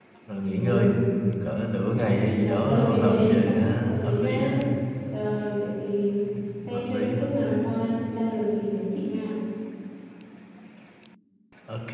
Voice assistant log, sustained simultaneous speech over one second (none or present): present